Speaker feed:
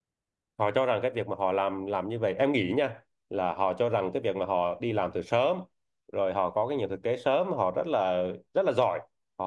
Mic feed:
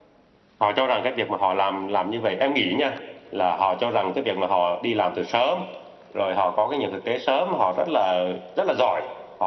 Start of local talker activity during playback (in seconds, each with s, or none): none